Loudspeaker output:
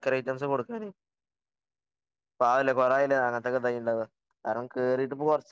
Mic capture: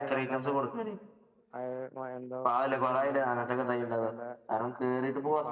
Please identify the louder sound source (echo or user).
echo